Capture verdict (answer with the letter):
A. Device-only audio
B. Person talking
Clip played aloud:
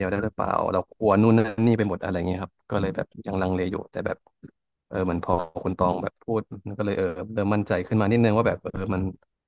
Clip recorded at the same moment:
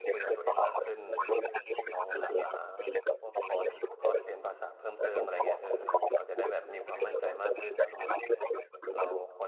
B